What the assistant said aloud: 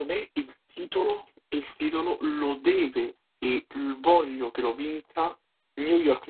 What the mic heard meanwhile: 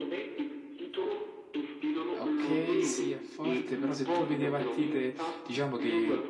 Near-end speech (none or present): present